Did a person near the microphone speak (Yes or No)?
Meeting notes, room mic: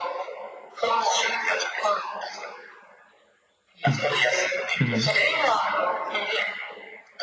Yes